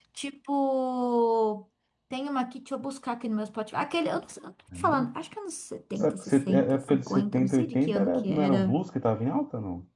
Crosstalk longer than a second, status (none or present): present